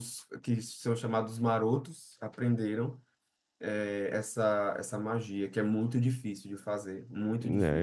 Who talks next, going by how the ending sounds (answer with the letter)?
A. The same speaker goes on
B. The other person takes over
B